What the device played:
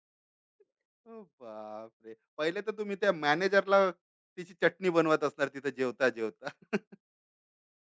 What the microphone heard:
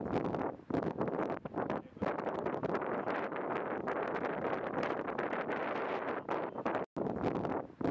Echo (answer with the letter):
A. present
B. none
B